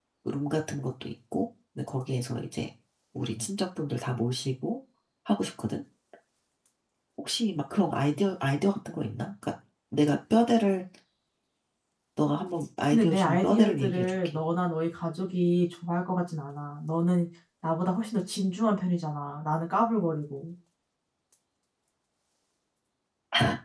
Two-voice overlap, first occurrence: 12.9 s

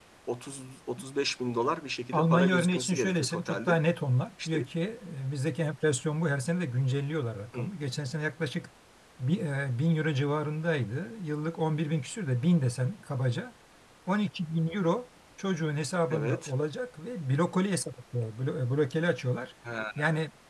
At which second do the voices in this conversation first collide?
2.1 s

